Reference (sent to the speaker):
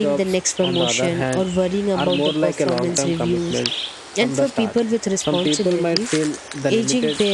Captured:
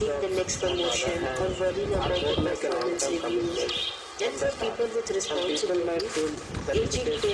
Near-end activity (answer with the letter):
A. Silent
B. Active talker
A